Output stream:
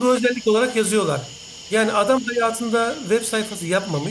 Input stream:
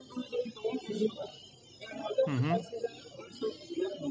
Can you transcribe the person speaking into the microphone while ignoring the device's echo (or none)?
Hı hı.